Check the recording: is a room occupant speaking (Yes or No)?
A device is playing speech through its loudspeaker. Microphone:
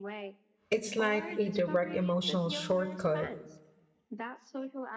Yes